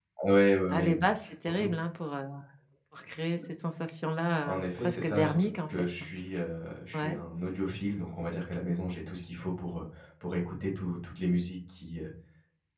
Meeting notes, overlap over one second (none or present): present